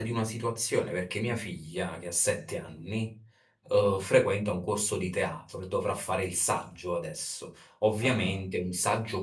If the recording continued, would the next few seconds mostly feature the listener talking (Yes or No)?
No